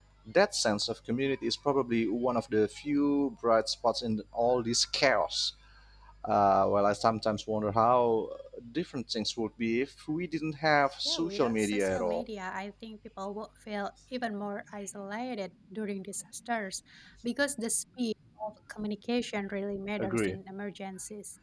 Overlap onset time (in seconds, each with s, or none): 11.1 s